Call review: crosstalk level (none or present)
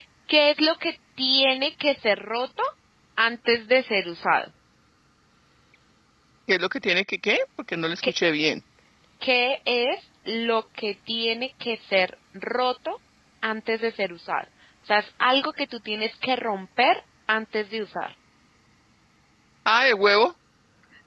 none